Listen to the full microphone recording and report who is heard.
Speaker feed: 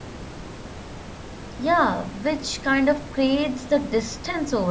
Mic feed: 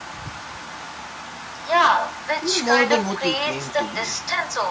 both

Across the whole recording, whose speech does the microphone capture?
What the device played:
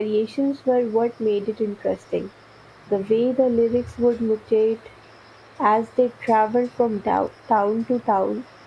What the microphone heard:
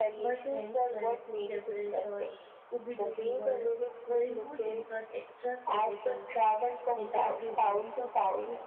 both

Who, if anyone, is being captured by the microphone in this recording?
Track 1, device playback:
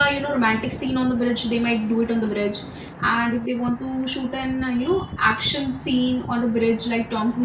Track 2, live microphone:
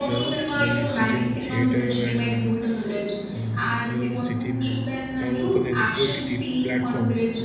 both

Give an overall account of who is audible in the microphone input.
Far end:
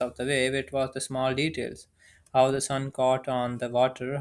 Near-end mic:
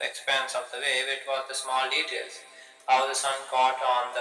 echo only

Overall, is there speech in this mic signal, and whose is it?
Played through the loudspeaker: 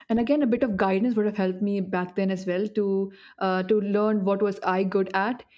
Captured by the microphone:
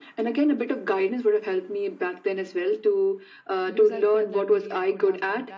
both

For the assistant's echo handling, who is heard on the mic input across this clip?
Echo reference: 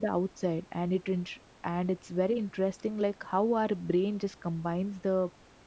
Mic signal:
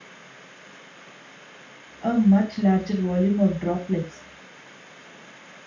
user only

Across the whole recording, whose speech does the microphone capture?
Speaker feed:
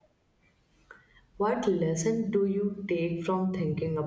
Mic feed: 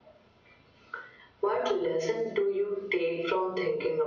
echo only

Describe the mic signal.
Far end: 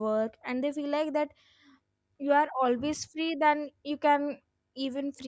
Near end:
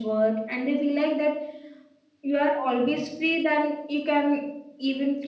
echo only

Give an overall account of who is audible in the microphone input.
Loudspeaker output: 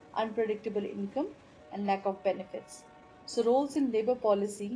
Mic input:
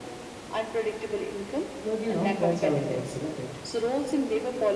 both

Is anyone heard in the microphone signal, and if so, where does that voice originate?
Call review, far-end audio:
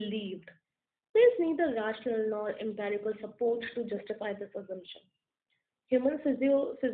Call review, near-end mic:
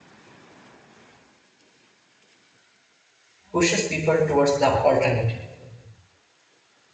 user only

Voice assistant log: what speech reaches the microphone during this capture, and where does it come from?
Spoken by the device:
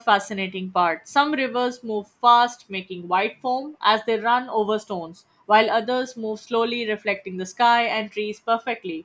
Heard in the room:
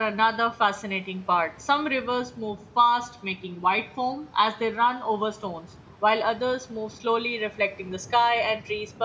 echo only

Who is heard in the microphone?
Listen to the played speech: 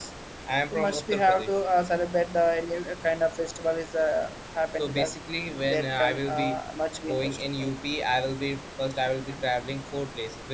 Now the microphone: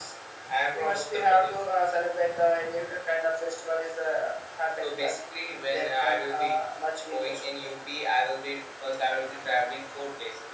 echo only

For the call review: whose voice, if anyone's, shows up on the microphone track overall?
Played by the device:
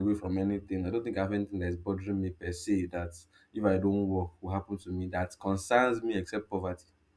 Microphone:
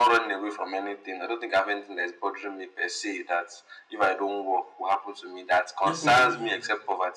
both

